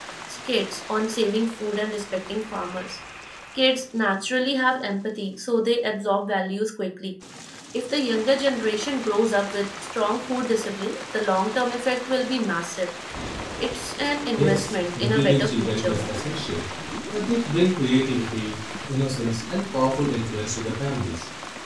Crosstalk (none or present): present